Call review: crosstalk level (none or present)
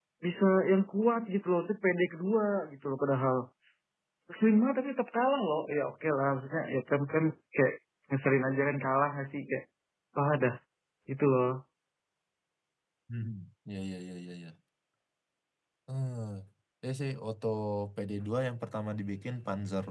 none